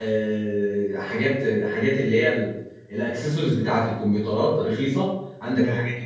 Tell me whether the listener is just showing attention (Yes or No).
Yes